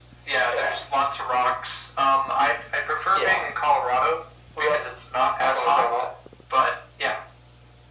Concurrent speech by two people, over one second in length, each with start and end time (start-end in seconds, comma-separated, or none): none